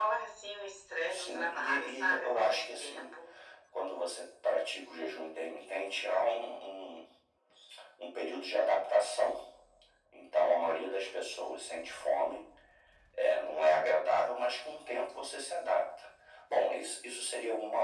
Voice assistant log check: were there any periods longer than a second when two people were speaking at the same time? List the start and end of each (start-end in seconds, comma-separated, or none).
1.1-3.1